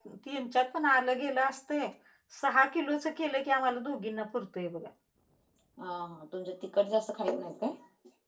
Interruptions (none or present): none